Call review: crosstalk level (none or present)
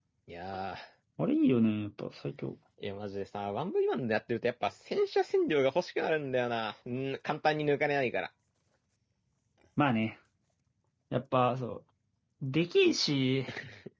none